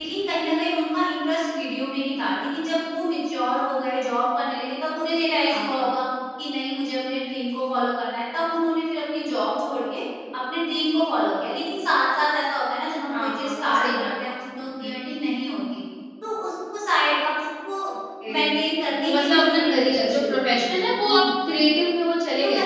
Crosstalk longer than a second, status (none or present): present